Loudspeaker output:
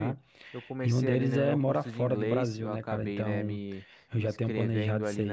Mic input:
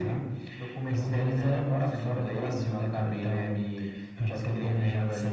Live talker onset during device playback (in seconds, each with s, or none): none